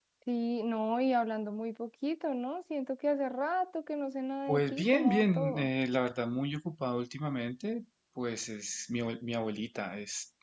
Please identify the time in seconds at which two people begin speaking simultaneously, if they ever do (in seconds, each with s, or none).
4.5 s